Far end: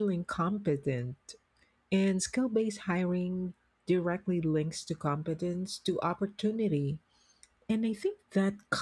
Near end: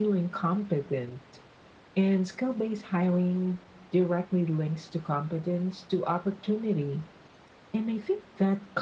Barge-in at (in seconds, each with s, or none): none